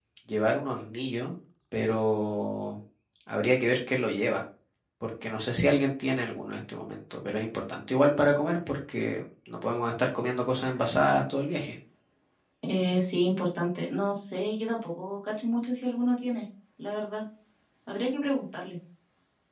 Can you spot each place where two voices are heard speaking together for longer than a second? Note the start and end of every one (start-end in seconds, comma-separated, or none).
none